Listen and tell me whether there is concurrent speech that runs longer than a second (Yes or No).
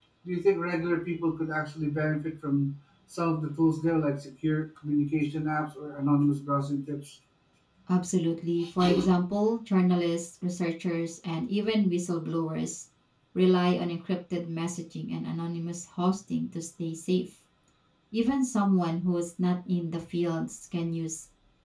No